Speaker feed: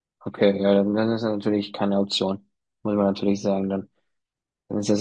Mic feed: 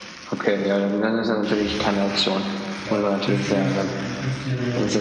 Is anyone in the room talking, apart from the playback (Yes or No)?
Yes